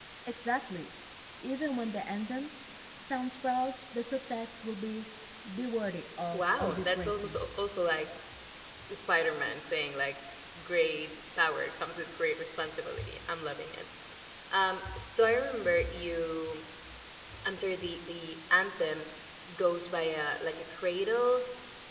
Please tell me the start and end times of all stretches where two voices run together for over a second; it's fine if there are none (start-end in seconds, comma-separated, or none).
6.3-7.6